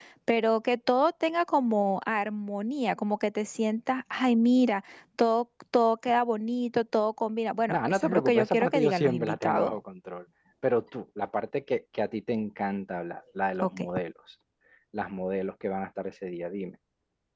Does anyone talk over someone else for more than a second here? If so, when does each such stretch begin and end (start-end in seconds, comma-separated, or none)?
7.7-9.8